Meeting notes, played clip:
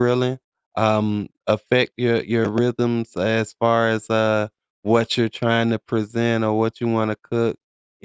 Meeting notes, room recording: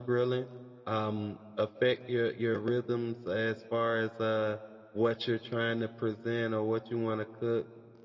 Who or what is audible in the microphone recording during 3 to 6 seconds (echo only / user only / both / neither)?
echo only